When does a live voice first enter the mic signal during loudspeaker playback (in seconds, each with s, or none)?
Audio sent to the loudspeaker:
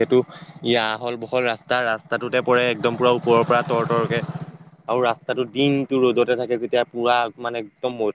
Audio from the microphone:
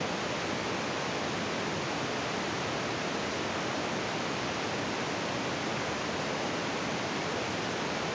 none